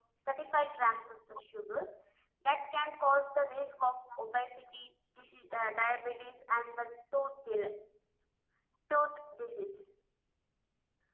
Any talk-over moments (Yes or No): No